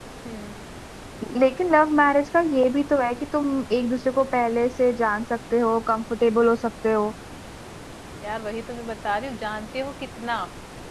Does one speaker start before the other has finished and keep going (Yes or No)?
No